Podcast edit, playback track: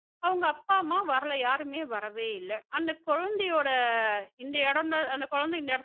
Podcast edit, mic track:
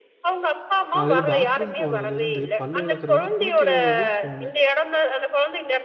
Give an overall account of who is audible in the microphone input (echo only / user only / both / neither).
both